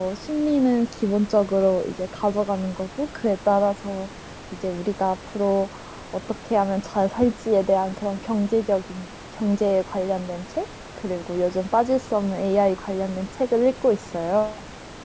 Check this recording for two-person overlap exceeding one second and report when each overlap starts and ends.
none

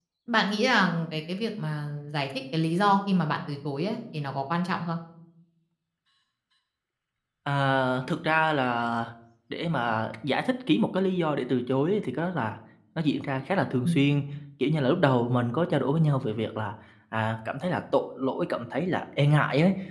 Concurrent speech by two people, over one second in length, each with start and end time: none

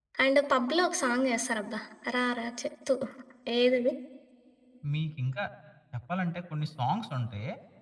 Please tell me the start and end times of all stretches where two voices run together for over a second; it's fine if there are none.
none

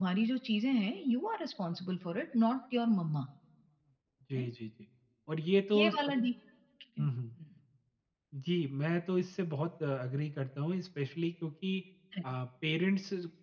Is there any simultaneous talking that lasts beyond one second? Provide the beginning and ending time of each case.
none

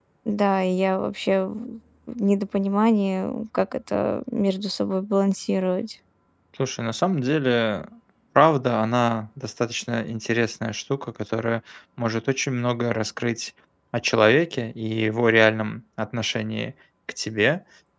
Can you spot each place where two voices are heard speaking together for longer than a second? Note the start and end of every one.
none

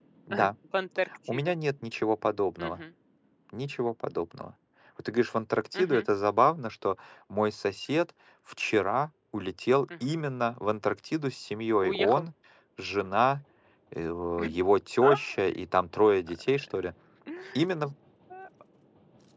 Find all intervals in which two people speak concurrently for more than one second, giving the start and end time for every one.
none

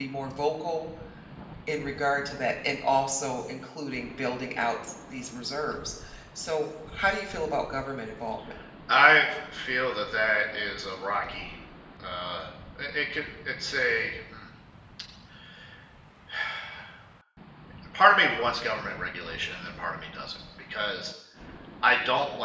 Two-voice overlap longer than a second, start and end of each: none

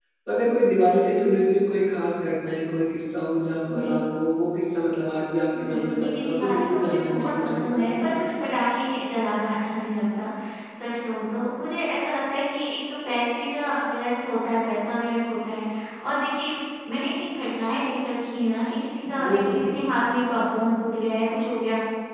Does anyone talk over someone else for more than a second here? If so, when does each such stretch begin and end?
5.7-8.2

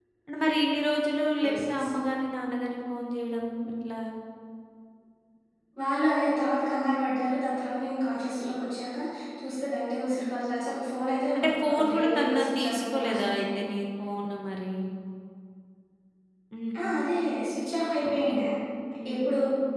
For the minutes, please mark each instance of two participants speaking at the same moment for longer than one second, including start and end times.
11.4-13.7

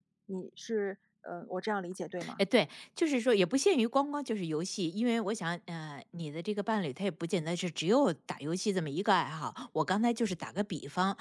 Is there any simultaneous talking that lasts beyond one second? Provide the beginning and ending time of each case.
none

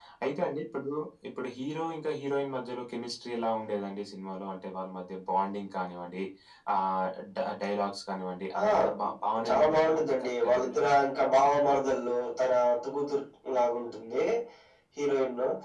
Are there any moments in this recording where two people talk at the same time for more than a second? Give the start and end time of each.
9.5-10.9

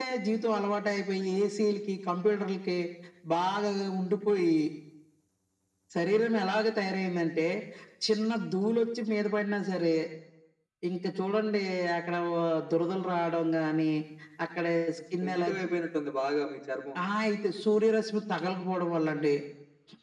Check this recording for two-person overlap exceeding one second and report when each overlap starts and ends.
none

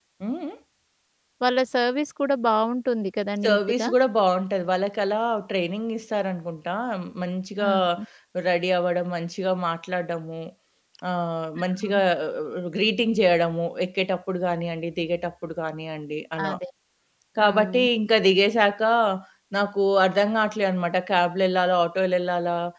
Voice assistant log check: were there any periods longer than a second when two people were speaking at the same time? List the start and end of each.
none

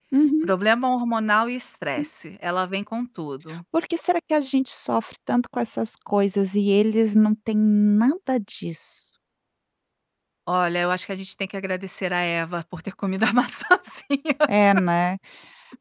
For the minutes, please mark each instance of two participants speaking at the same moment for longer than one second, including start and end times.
none

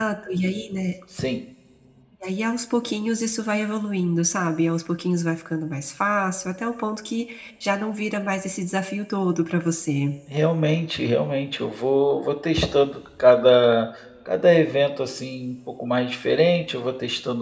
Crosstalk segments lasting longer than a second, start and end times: none

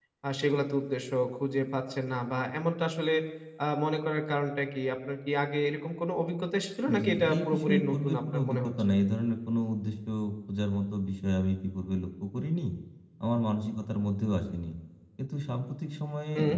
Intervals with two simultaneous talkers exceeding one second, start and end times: 7.0-8.7

